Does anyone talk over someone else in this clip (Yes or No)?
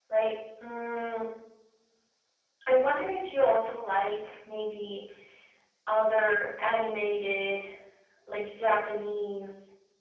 No